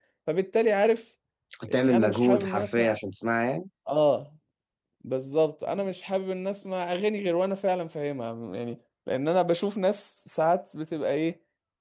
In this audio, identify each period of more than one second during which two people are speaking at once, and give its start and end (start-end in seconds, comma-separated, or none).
1.7-3.0